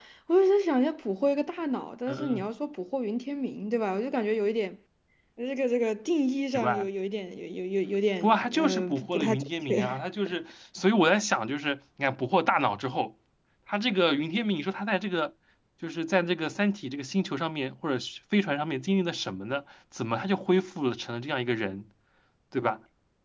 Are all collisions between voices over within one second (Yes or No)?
No